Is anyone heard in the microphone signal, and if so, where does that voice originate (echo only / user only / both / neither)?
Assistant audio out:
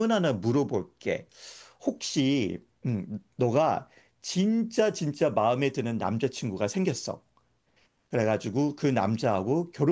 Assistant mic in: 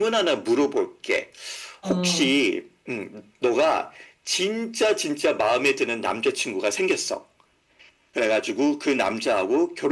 both